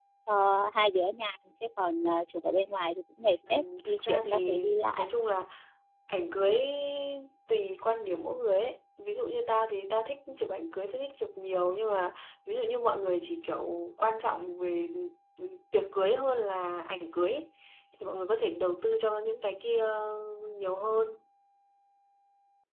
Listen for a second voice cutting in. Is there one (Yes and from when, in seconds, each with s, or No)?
Yes, from 3.4 s